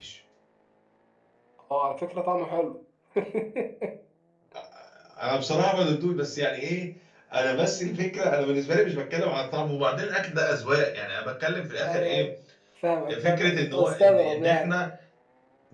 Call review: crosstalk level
present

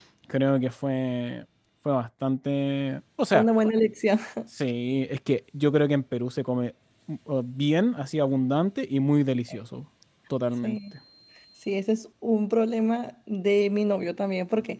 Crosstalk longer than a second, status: none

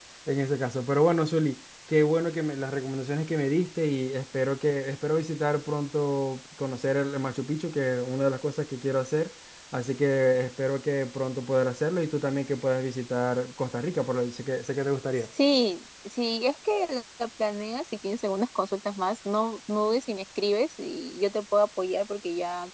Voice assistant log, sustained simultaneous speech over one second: none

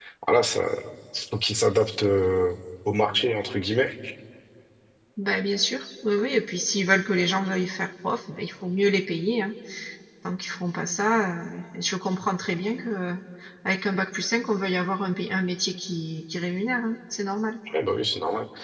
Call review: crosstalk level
none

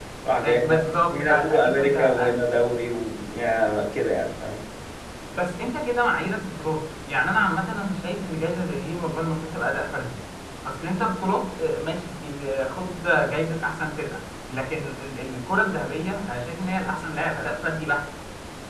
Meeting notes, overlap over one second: present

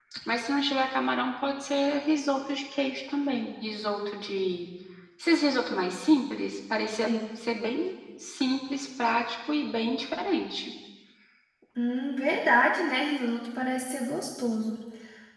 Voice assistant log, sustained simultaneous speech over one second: none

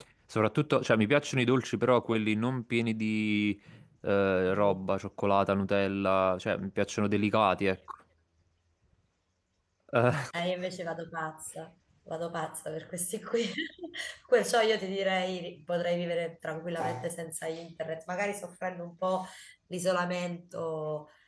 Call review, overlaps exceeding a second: none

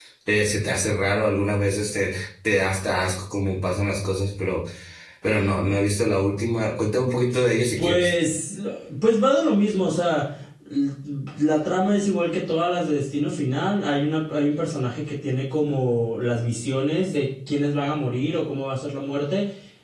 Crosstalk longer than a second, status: none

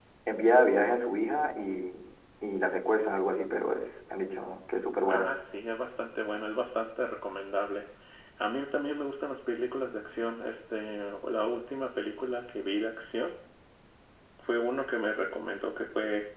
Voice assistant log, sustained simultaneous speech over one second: none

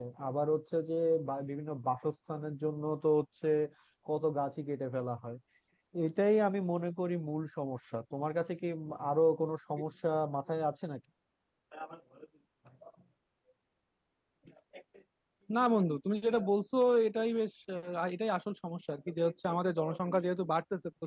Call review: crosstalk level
none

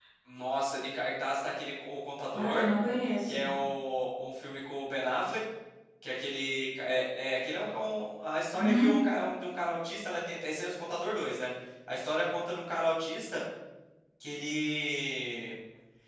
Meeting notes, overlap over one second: none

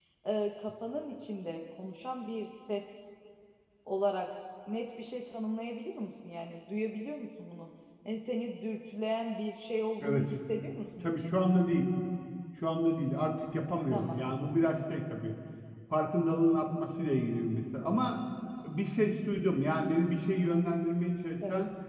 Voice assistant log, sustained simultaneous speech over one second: none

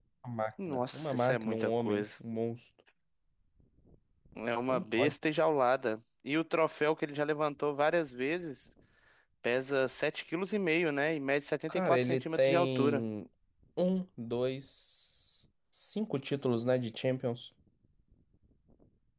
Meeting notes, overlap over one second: present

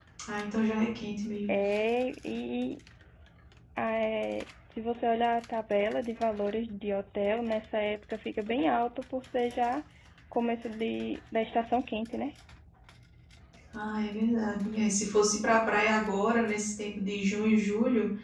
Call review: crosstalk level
none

